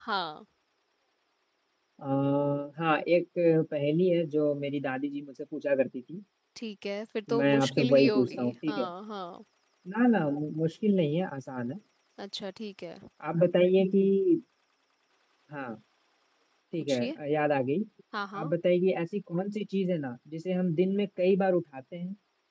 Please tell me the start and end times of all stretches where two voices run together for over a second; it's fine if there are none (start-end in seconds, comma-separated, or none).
7.4-8.8